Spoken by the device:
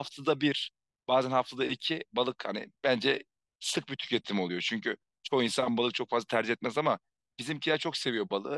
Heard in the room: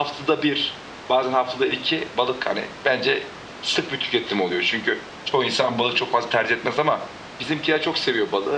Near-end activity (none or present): none